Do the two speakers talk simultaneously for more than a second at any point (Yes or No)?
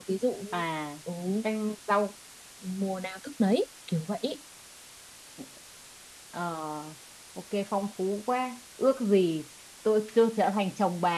No